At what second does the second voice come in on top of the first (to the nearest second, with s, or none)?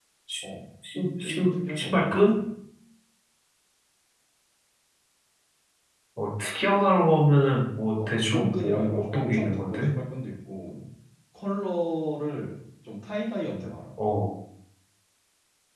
1 s